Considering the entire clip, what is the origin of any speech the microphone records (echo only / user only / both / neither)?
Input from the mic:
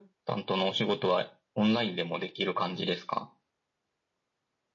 echo only